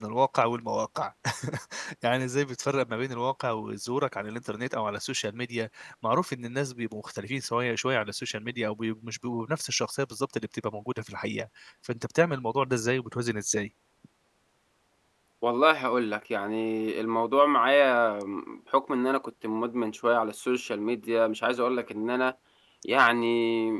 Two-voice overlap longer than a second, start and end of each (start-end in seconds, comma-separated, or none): none